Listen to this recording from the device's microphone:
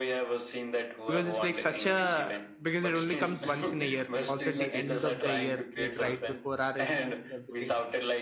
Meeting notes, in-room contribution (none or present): present